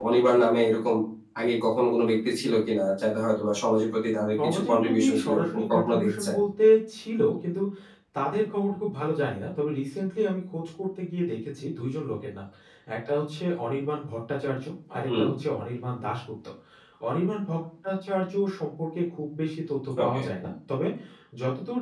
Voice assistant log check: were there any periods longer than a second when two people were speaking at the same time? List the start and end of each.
4.4-6.3

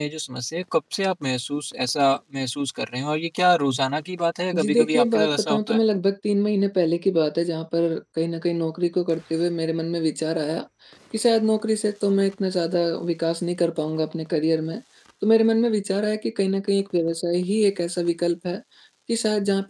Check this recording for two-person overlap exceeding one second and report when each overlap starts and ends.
4.5-5.8

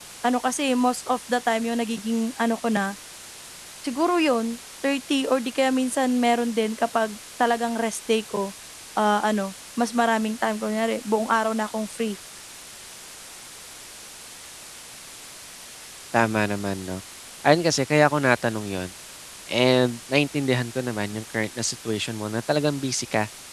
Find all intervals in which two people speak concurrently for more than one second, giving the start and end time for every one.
none

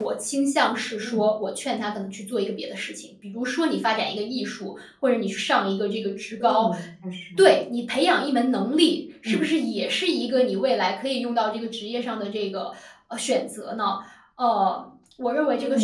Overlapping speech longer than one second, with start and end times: none

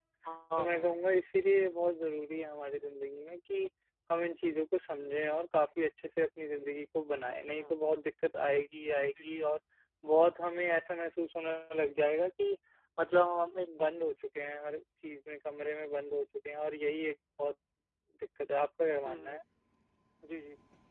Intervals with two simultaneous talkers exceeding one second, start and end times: none

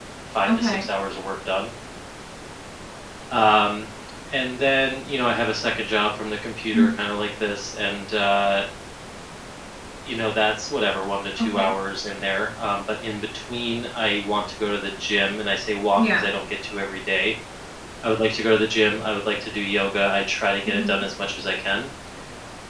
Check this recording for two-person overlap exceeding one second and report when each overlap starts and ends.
none

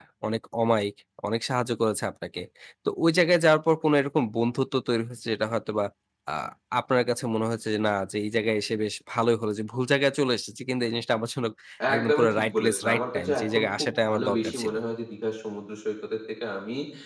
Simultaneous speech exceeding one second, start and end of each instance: 11.9-14.7

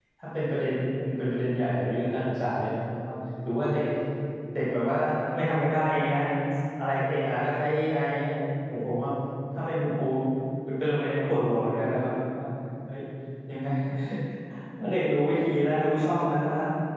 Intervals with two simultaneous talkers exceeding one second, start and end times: none

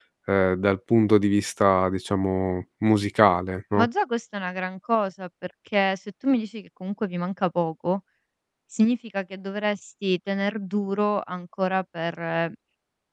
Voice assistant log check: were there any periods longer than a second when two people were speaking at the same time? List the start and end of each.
none

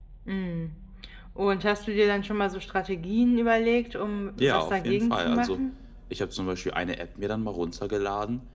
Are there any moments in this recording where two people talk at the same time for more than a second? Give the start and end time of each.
4.4-5.6

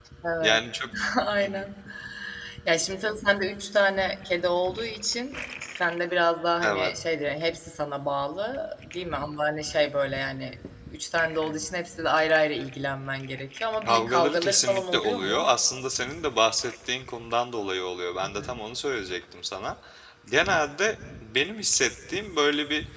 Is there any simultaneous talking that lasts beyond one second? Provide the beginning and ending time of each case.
13.8-15.5

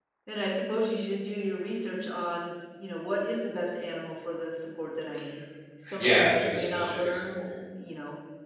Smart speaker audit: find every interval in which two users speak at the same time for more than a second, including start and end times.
6.0-7.5

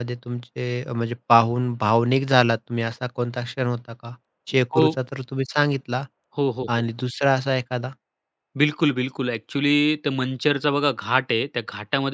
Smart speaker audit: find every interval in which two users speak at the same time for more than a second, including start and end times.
none

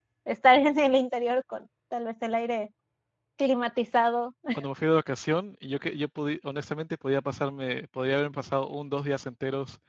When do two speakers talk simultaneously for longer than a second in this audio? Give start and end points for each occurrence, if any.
none

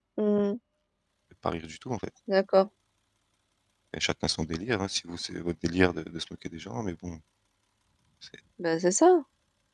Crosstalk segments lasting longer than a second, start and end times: none

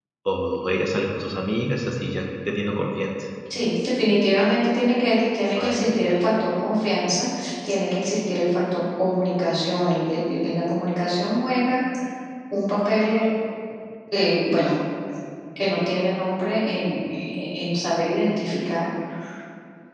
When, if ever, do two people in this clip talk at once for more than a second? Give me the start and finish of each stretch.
none

